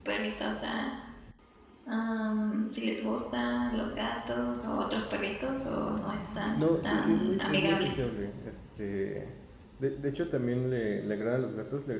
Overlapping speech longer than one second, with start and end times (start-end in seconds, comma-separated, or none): 6.5-7.9